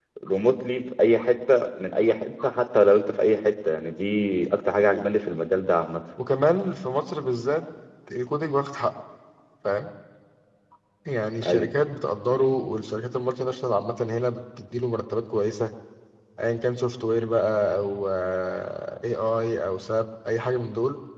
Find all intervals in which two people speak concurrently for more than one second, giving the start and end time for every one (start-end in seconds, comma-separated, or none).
none